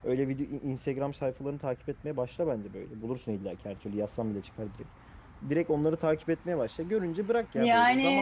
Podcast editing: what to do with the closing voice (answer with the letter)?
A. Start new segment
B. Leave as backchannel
B